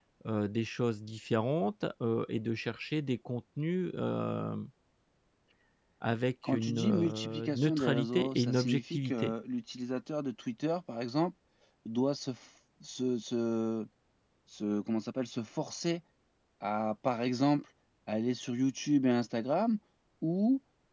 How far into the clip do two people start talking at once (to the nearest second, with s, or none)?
6 s